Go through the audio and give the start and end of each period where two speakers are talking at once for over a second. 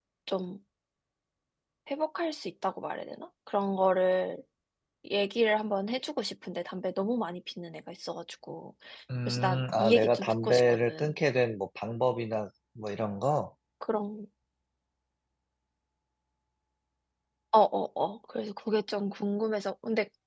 9.3-11.1

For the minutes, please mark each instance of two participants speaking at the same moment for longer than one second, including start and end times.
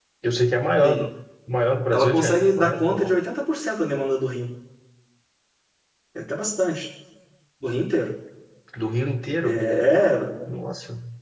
1.9-3.1

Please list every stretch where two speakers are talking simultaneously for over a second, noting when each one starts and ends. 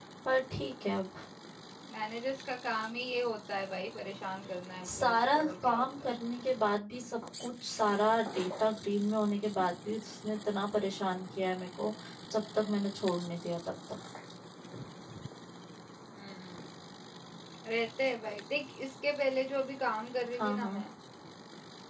4.8-6.1

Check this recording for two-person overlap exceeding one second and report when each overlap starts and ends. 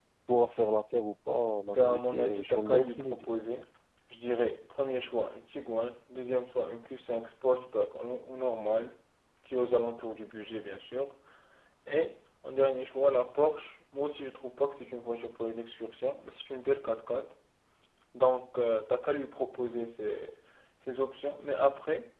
1.8-3.3

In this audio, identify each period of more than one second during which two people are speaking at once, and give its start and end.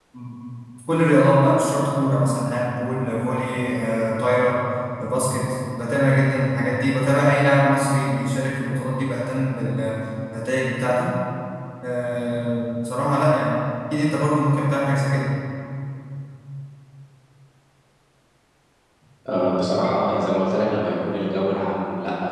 none

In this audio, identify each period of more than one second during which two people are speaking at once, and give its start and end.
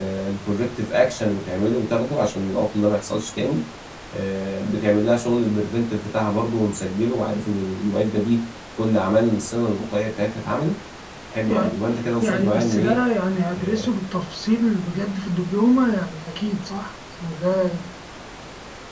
11.5-13.0

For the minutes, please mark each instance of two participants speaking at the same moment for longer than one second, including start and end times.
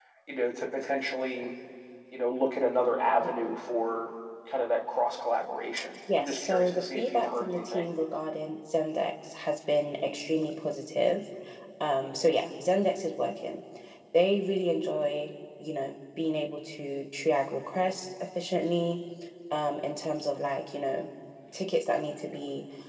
6.2-7.9

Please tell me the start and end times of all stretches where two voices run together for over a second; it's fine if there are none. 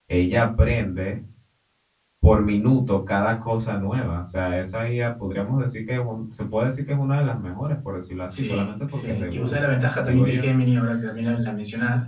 8.3-9.6

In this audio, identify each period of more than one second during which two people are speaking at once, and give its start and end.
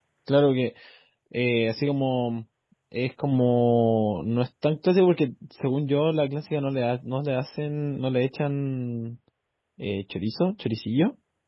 none

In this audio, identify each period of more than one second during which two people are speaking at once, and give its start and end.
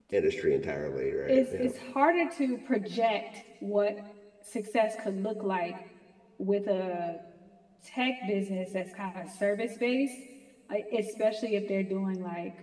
none

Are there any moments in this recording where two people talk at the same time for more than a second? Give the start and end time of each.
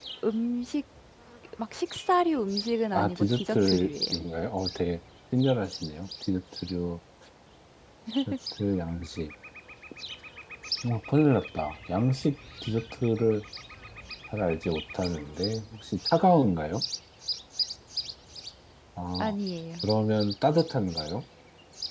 2.9-4.2

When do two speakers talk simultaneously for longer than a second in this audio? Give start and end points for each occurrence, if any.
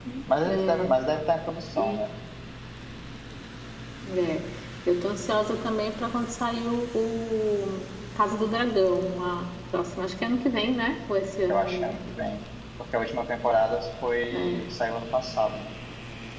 none

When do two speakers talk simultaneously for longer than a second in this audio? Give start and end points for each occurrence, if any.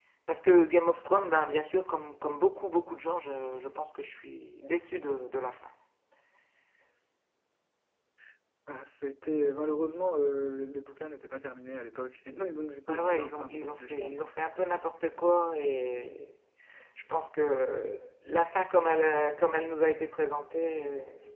12.9-14.3

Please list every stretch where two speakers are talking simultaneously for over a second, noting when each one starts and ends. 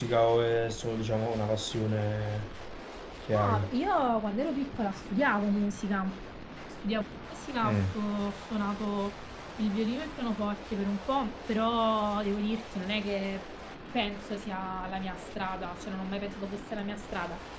none

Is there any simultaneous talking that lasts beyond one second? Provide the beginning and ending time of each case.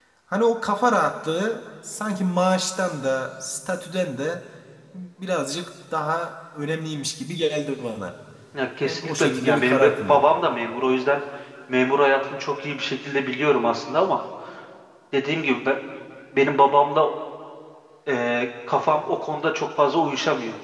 8.8-10.2

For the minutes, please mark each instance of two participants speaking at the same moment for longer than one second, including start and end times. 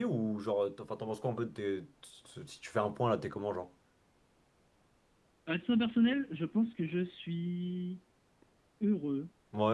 none

